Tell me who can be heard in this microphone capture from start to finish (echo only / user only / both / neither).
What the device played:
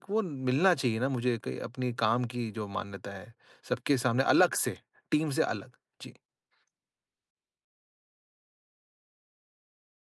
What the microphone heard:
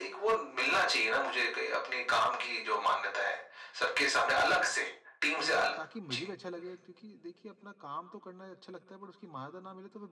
both